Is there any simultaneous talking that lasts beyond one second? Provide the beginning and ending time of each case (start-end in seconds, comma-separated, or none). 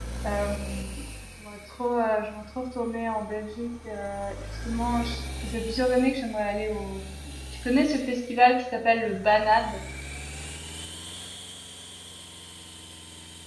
none